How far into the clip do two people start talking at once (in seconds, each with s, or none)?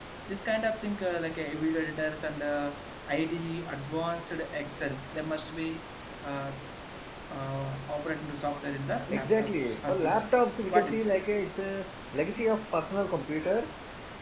9.1 s